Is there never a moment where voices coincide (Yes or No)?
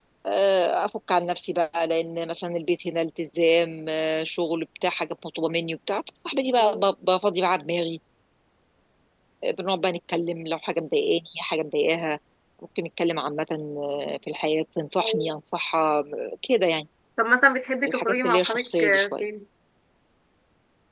No